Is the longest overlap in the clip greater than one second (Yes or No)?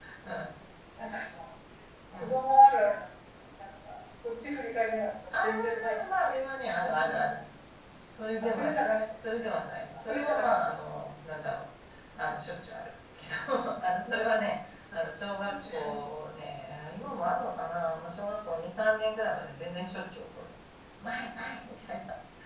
Yes